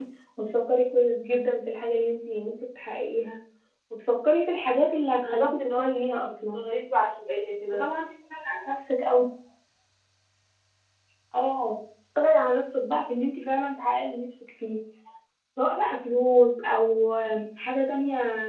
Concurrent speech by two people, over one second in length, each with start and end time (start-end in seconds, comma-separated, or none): 5.2-6.6